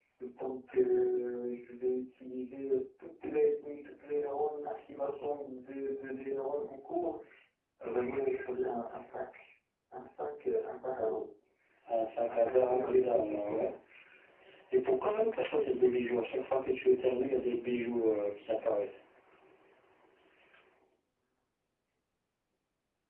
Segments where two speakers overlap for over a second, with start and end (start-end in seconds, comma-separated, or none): 12.3-13.7